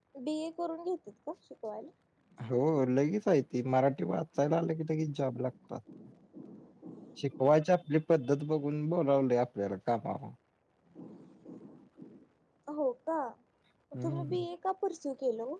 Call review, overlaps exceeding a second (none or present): none